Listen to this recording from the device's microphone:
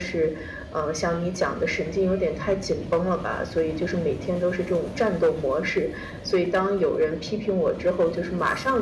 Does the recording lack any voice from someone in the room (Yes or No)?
Yes